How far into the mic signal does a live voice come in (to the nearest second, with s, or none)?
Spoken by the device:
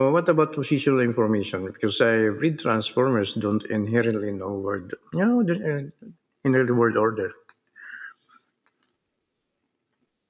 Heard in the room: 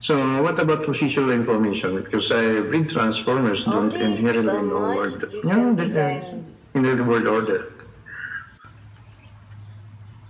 4 s